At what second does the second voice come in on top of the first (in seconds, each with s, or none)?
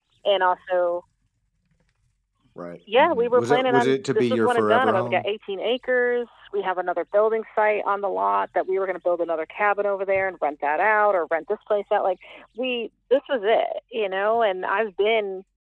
3.0 s